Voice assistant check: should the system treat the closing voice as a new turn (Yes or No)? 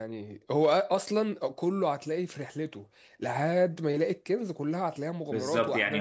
Yes